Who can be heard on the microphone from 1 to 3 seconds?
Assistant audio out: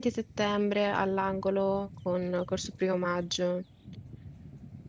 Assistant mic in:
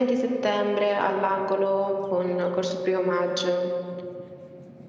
echo only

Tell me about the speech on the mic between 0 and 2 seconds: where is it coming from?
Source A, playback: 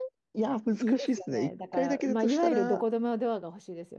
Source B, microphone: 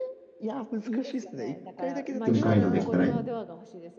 echo only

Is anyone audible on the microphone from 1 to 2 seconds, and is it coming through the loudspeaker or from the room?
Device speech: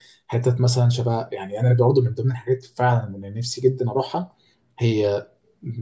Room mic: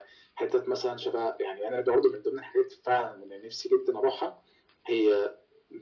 echo only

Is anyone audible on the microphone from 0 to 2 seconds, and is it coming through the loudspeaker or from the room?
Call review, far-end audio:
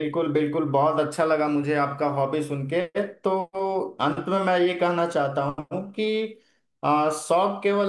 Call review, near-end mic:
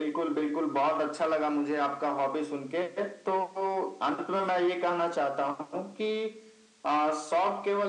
echo only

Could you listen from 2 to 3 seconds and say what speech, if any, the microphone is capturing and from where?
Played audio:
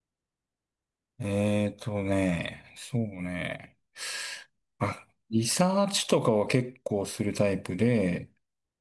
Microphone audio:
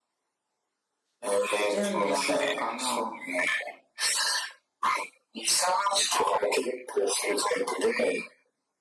both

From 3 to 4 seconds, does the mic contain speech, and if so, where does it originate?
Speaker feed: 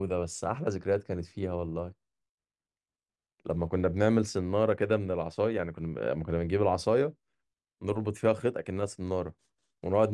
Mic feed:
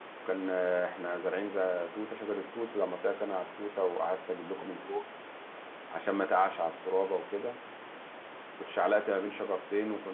user only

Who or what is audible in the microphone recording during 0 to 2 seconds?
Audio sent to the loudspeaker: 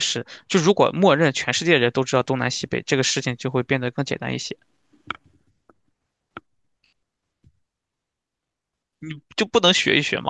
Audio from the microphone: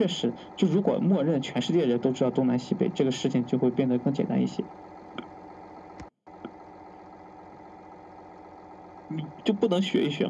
echo only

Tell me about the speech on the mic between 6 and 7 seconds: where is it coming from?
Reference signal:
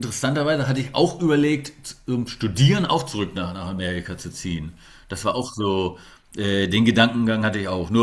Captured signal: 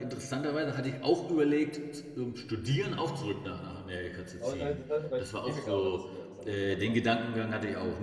both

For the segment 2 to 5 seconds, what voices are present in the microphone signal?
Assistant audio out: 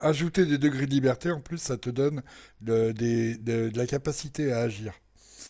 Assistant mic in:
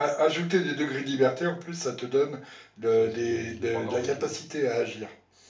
both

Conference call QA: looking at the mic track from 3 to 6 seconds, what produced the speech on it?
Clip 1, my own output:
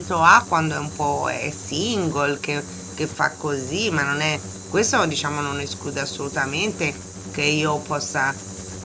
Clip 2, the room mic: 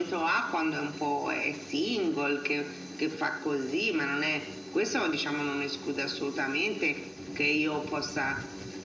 echo only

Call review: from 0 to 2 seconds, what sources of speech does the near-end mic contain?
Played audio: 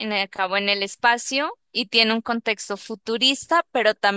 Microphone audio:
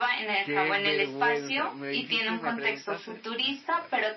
both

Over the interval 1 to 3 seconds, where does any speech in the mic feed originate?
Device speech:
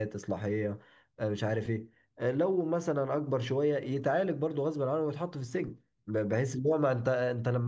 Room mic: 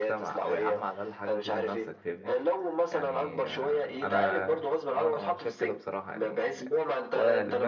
both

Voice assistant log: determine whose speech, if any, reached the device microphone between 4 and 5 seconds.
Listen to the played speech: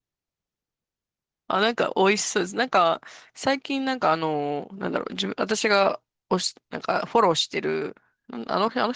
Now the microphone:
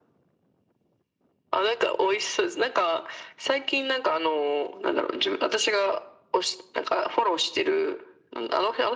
echo only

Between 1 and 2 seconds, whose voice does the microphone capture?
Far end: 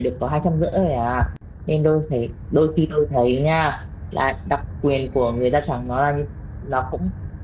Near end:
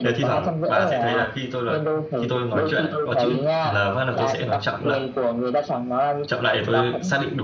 both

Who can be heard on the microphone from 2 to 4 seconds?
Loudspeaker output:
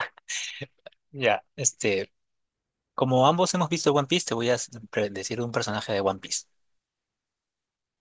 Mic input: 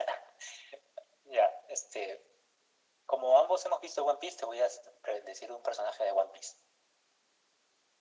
echo only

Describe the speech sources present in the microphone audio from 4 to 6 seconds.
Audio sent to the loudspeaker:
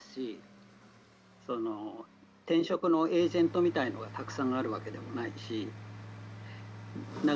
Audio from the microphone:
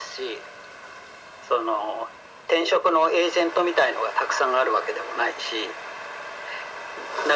echo only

